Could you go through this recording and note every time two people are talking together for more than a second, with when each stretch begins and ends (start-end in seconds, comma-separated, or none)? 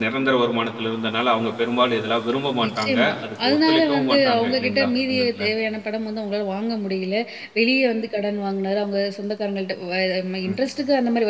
2.6-5.4